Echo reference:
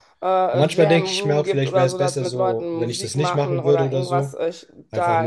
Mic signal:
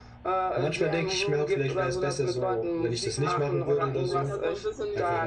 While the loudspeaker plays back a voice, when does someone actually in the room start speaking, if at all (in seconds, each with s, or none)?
3.1 s